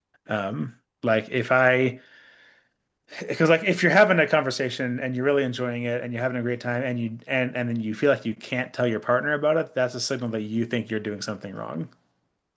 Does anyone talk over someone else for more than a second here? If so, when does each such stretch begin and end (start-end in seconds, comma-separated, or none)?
none